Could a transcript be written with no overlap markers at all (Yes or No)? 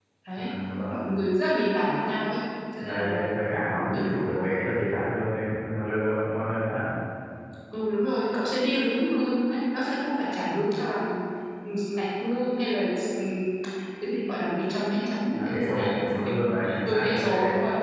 No